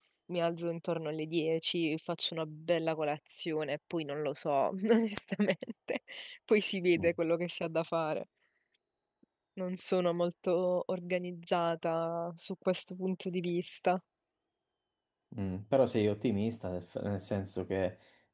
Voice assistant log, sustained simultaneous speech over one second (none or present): none